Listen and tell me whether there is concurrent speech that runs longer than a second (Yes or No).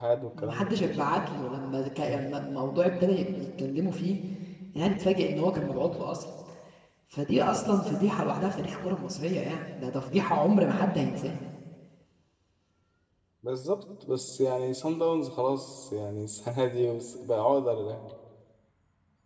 No